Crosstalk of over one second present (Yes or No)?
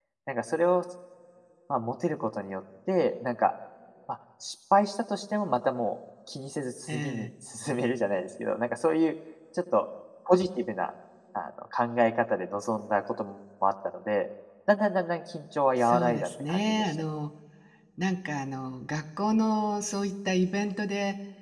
Yes